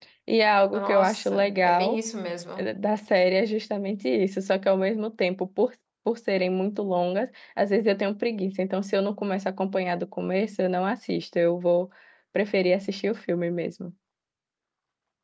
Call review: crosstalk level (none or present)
present